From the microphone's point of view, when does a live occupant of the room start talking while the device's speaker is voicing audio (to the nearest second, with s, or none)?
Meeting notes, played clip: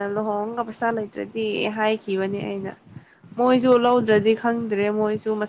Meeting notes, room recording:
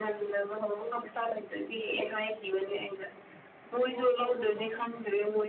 4 s